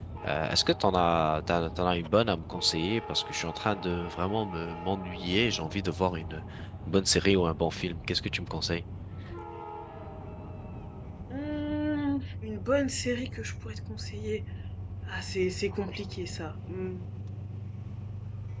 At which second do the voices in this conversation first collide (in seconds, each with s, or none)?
none